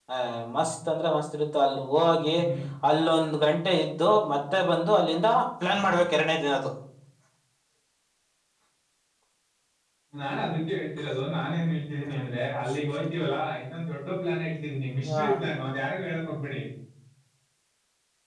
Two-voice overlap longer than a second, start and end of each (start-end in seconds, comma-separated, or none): none